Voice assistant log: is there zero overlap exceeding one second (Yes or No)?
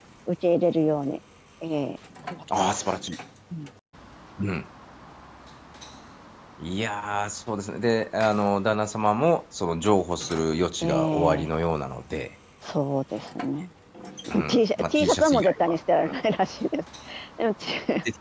No